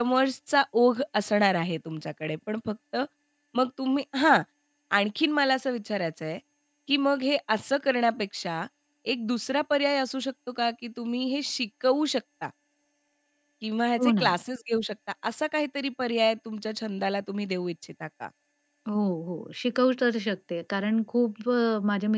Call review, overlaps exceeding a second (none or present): none